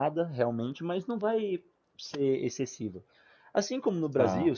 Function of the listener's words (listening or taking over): listening